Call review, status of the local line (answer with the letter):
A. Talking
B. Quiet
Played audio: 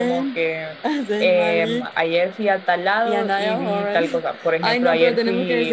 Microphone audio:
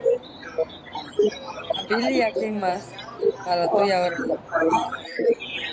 A